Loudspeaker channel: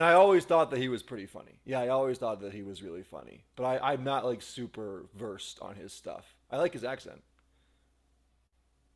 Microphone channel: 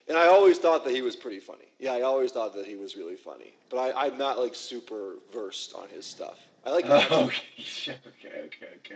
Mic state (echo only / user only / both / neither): both